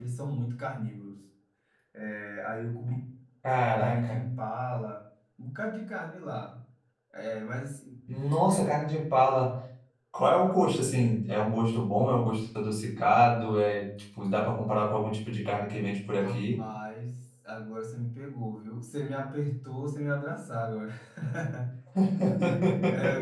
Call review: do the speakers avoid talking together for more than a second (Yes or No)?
Yes